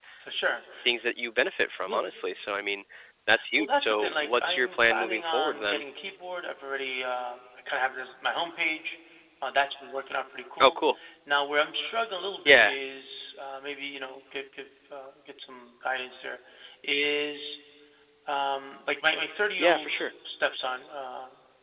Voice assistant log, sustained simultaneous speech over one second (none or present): present